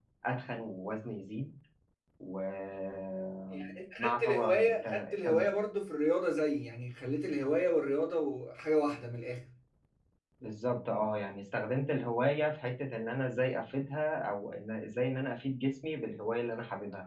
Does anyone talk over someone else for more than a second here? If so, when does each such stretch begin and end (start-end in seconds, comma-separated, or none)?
3.5-5.5